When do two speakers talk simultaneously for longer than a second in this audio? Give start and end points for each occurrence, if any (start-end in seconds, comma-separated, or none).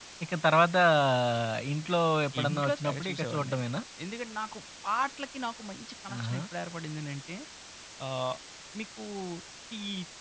2.4-3.6